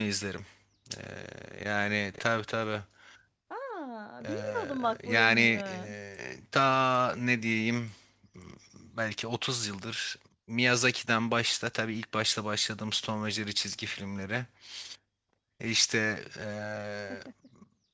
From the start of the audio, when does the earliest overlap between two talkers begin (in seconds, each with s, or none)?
4.2 s